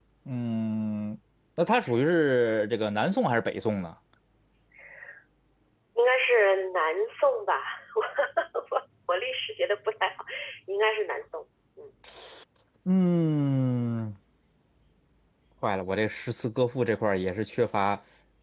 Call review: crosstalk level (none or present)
none